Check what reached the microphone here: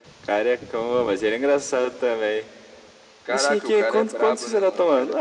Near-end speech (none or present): none